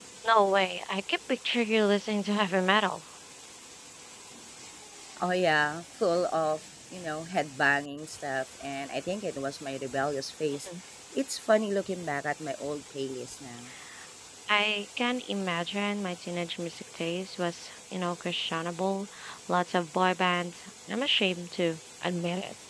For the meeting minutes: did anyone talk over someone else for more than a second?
No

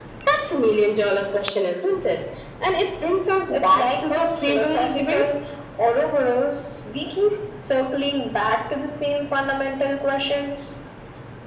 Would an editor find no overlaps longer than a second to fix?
No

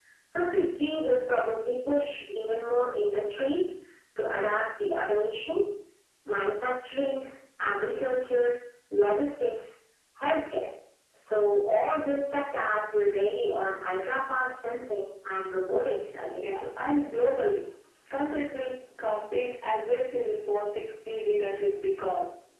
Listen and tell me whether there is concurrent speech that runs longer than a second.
No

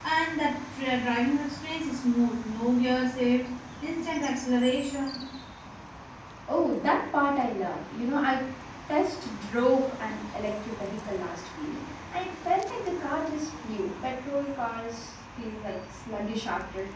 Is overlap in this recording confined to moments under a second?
Yes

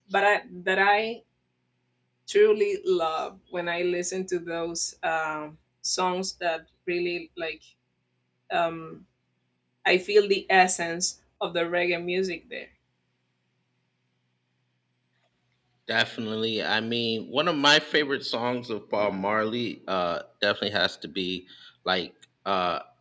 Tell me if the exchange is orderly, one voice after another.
Yes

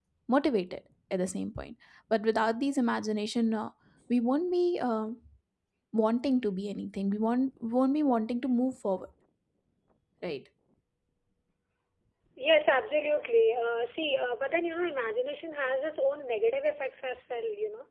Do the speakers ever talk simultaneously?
No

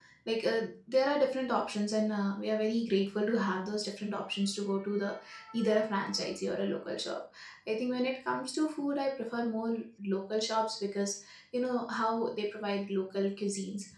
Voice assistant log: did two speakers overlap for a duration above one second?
No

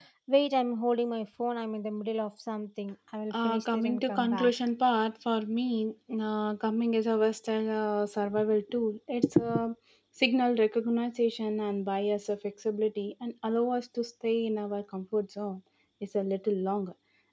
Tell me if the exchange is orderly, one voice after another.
No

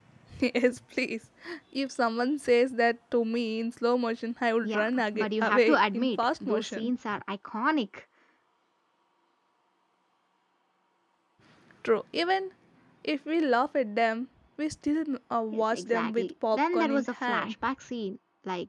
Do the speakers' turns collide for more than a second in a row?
Yes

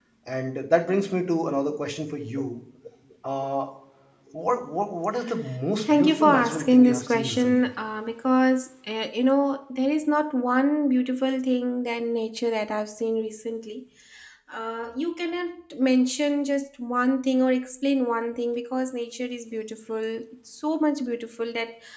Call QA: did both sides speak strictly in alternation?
No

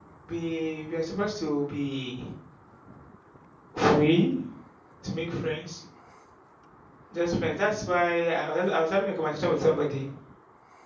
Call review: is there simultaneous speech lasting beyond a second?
No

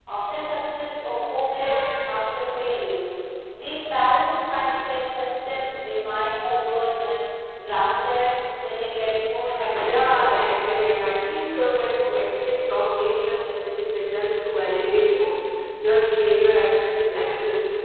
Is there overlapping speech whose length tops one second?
Yes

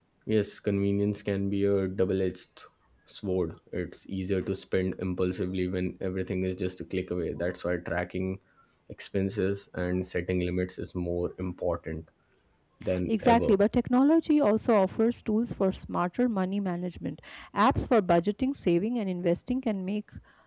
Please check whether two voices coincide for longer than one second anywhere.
No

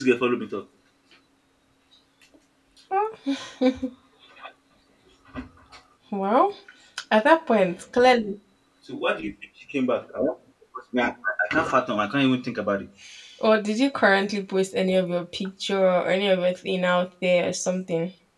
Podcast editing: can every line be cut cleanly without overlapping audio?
Yes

